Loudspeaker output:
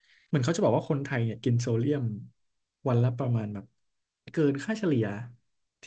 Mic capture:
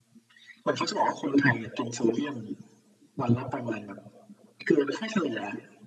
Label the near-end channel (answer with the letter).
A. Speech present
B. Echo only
B